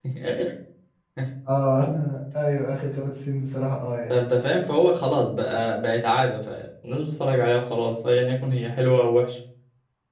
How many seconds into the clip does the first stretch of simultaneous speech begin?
none

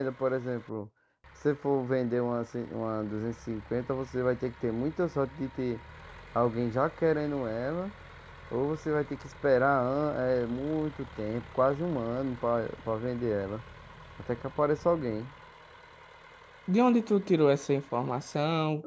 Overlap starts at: none

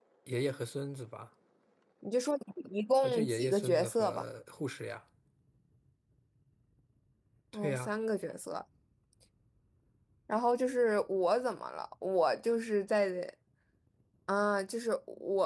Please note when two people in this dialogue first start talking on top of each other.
3.0 s

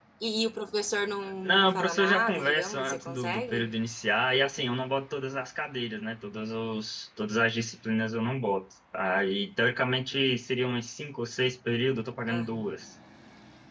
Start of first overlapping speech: 1.4 s

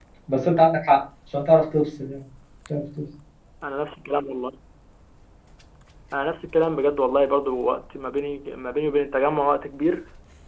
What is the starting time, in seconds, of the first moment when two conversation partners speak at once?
none

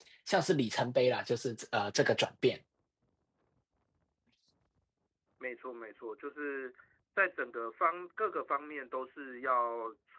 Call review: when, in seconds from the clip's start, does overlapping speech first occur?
none

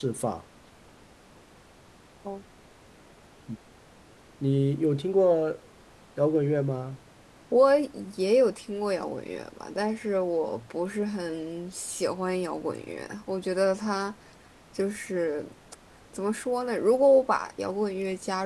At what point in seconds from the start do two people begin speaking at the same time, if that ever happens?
none

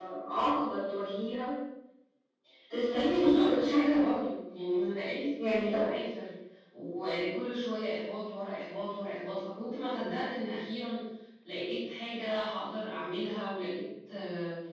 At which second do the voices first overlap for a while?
2.8 s

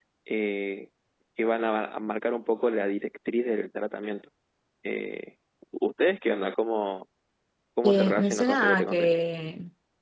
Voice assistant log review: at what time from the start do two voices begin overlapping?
7.8 s

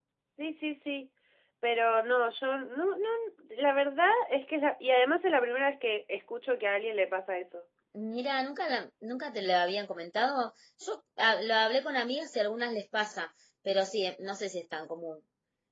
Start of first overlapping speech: none

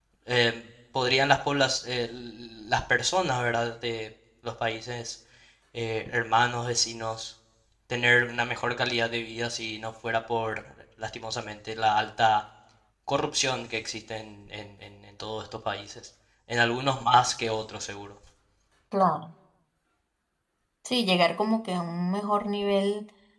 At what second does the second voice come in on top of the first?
none

